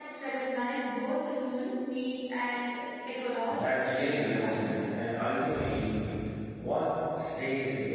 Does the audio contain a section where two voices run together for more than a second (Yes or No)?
Yes